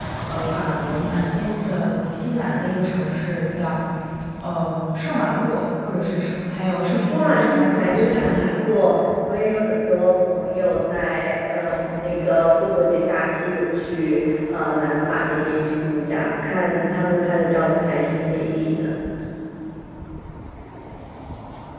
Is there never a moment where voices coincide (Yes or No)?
No